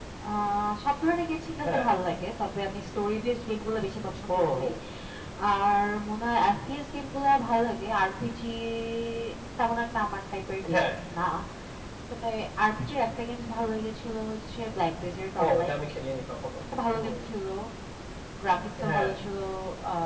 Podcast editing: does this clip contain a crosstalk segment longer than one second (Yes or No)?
No